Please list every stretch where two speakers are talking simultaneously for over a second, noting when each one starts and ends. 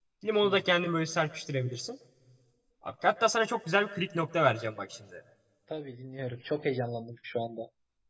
none

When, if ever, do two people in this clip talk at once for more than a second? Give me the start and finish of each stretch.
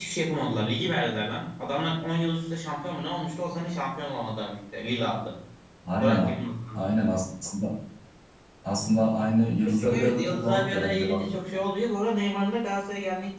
9.6-11.3

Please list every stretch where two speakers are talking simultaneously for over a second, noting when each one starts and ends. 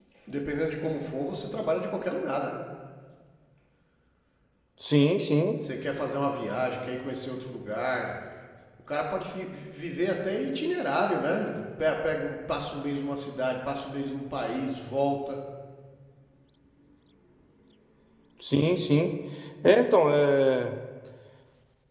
none

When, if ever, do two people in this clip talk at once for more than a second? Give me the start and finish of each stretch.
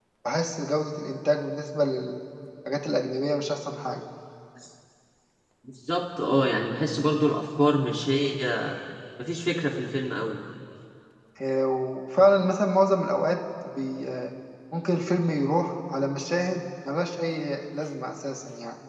none

